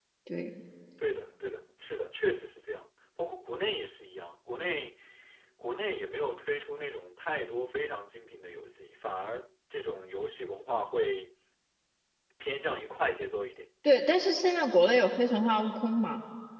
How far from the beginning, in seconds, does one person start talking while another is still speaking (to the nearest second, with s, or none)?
none